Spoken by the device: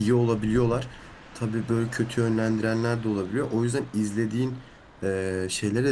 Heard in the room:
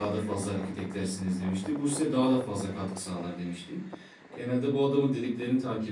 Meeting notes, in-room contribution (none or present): present